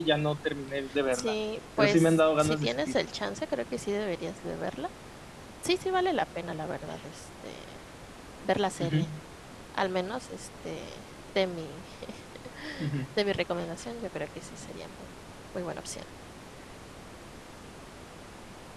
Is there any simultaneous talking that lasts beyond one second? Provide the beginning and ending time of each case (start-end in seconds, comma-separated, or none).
1.8-3.0